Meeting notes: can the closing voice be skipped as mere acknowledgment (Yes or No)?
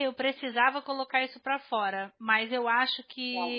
Yes